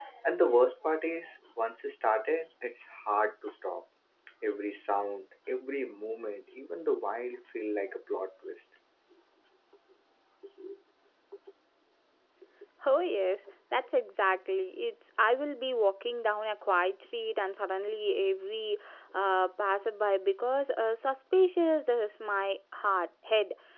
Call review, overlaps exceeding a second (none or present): none